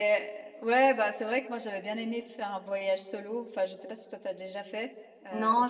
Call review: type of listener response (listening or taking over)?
taking over